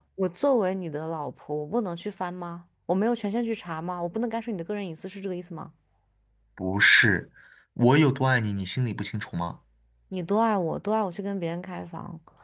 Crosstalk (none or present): none